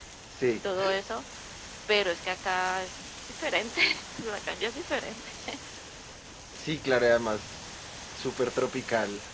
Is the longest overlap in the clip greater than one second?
No

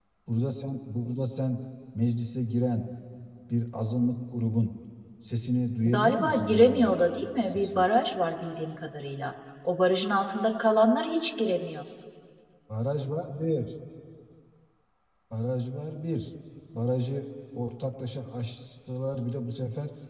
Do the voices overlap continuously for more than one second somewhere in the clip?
Yes, from 5.8 s

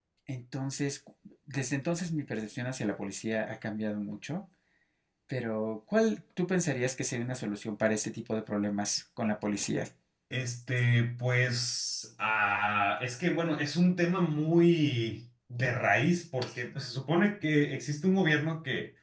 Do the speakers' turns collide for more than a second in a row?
No

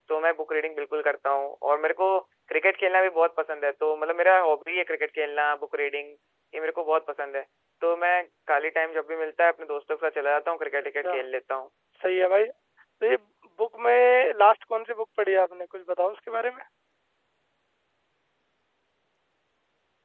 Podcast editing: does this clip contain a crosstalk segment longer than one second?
No

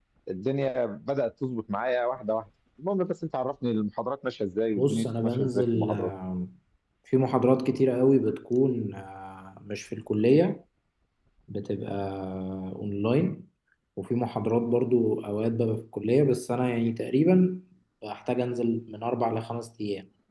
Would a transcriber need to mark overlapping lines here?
Yes, from 4.8 s

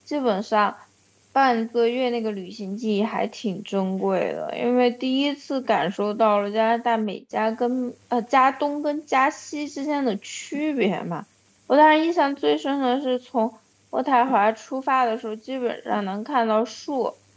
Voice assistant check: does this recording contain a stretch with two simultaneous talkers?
No

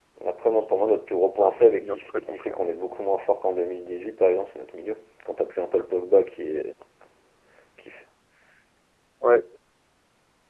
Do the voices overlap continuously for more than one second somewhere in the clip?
Yes, from 1.3 s

